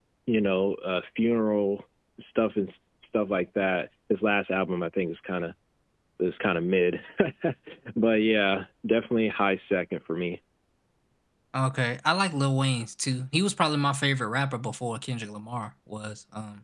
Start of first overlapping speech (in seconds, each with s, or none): none